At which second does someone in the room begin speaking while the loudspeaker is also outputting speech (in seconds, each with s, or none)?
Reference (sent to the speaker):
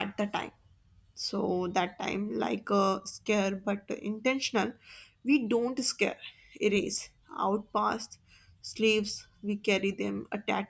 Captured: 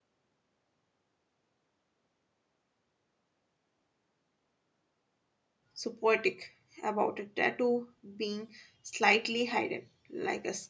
5.7 s